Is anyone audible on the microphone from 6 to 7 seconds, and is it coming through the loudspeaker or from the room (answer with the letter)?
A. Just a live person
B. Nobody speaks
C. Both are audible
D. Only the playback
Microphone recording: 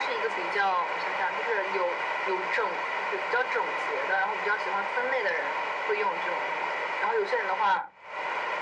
D